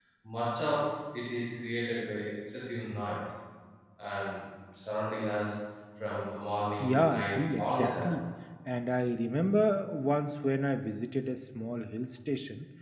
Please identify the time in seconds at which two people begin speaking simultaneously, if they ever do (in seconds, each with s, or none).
6.8 s